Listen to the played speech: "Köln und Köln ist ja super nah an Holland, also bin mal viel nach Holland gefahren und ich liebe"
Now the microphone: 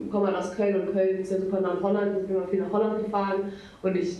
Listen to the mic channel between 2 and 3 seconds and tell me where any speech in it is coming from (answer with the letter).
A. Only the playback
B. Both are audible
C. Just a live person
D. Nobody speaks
A